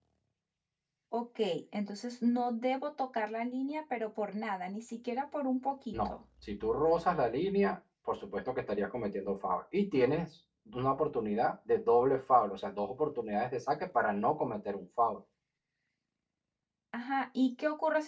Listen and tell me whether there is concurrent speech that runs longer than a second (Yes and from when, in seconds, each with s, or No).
No